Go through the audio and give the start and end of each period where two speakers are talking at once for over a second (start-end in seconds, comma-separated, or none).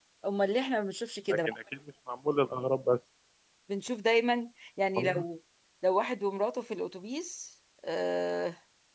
none